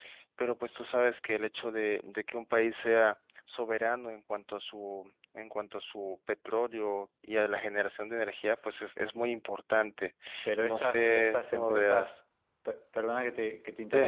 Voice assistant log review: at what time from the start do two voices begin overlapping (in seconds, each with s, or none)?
10.6 s